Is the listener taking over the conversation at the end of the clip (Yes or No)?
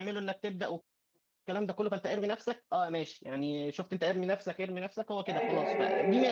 Yes